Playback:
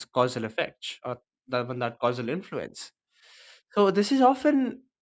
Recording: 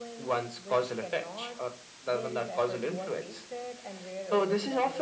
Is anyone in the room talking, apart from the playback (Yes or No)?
Yes